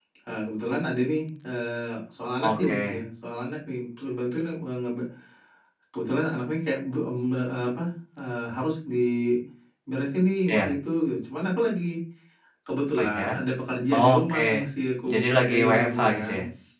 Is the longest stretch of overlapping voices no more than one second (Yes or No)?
No